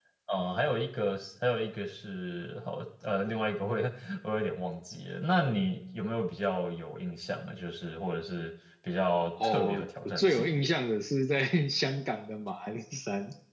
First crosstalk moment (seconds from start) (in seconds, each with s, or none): 9.4 s